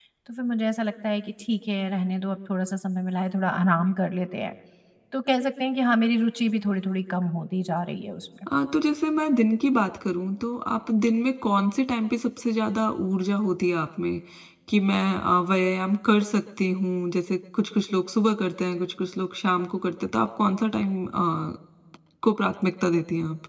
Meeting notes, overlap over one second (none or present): none